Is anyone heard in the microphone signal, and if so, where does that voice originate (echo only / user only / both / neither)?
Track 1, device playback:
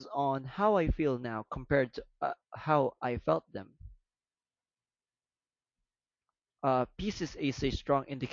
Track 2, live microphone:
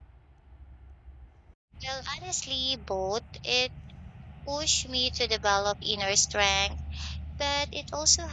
user only